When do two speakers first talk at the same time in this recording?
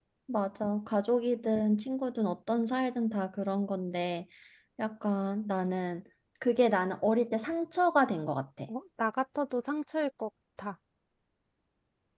none

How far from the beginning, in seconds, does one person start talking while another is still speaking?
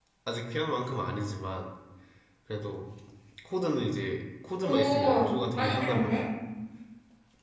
4.6 s

